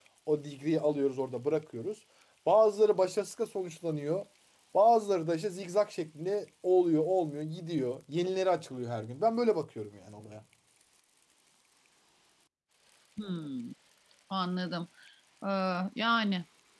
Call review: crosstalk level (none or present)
none